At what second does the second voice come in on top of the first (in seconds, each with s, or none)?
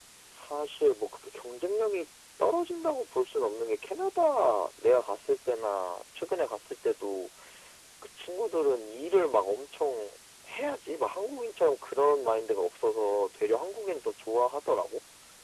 none